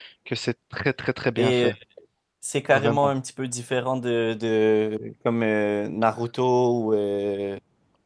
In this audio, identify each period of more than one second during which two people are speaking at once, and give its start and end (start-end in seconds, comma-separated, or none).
none